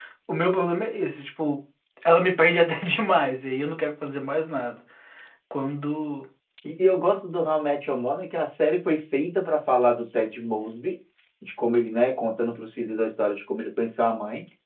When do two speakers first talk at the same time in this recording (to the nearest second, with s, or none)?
none